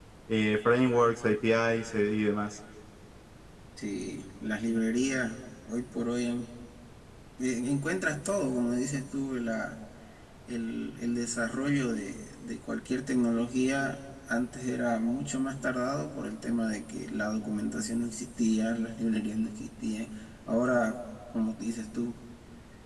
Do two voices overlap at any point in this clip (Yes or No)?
No